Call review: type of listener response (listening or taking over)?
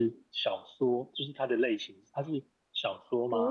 taking over